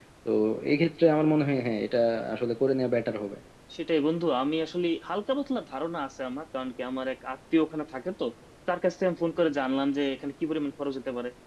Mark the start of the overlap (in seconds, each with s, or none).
none